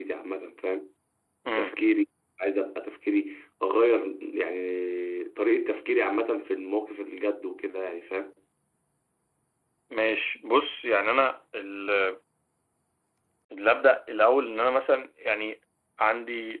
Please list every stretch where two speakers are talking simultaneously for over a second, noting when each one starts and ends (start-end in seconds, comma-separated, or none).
none